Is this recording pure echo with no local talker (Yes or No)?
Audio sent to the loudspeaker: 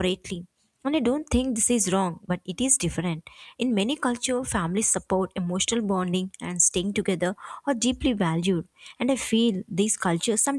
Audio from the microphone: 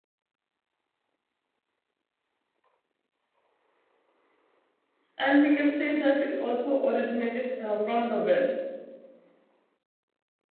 No